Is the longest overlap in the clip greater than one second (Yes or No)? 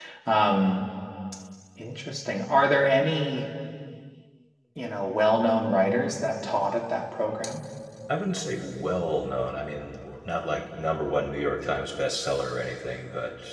No